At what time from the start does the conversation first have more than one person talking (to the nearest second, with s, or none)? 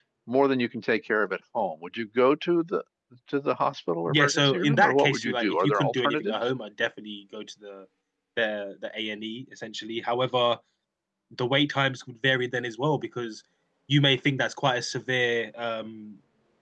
4 s